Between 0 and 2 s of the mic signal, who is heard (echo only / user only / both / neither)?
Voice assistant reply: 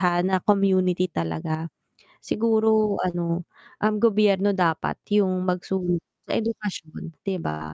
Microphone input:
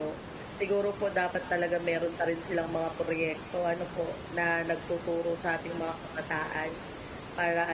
user only